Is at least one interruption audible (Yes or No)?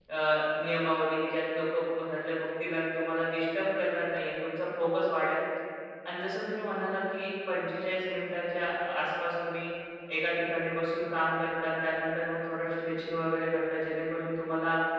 No